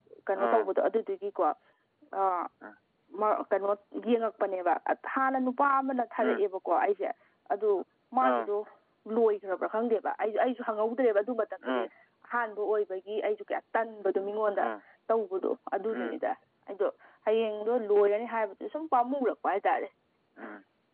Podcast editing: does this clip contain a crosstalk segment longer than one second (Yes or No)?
No